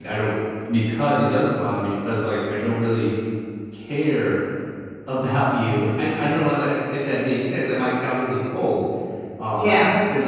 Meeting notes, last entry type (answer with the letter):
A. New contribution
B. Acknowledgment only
B